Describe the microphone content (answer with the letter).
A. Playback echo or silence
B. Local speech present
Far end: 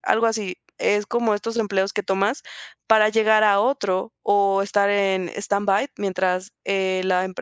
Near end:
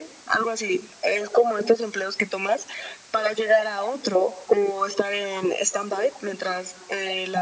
A